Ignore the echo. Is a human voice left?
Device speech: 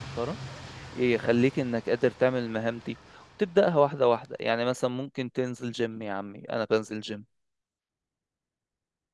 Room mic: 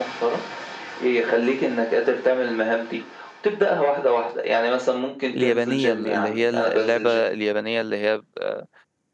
Yes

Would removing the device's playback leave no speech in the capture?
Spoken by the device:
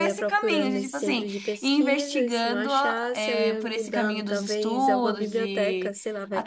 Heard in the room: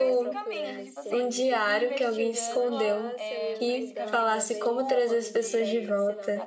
No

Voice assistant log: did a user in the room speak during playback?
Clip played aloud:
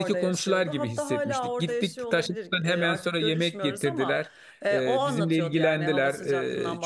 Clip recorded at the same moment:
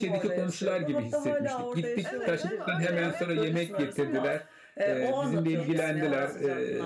Yes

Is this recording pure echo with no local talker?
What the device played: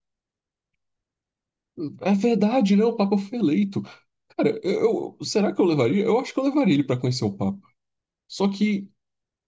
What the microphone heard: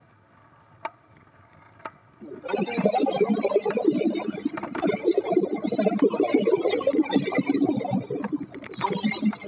Yes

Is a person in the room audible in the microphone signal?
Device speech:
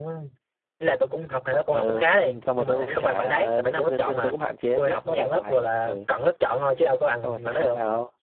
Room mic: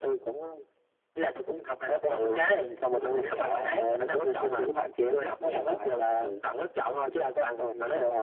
No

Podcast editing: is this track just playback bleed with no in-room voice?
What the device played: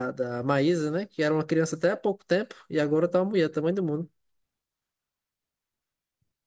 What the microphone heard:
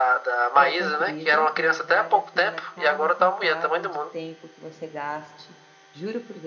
No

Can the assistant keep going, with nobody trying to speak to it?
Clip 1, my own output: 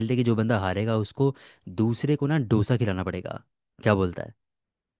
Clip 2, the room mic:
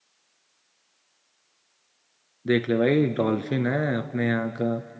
No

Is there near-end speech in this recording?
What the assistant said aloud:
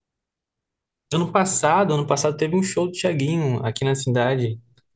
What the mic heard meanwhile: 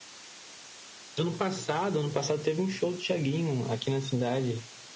No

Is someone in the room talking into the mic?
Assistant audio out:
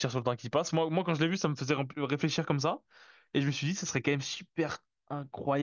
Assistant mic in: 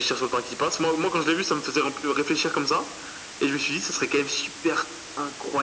No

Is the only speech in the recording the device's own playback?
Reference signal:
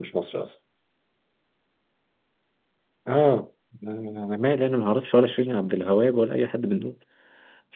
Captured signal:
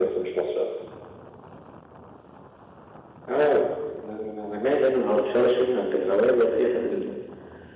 Yes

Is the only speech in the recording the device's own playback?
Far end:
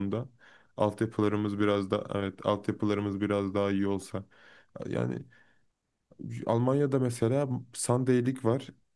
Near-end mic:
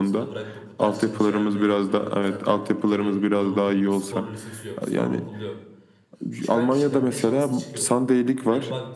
No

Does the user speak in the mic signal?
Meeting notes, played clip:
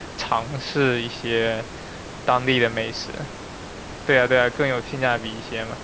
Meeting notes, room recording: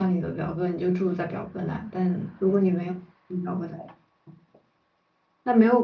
Yes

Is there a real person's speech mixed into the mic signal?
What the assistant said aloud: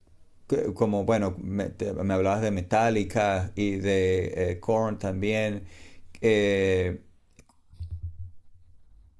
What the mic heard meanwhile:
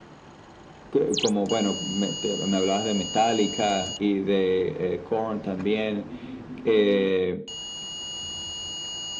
No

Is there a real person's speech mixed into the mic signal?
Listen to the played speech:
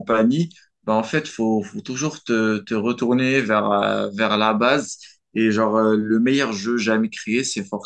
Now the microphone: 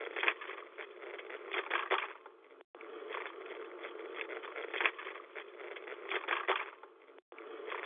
No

